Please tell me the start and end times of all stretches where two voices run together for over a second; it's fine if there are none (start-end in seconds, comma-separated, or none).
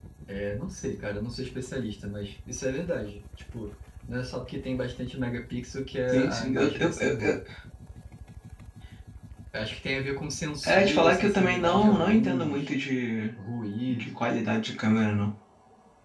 6.1-7.4, 10.6-12.7